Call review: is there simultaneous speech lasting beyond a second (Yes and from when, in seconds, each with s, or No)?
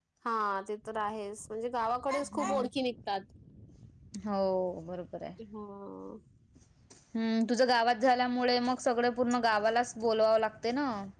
No